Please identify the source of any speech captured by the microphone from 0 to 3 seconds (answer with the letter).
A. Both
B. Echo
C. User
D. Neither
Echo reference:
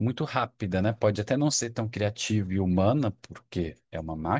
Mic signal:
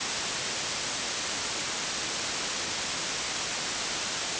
D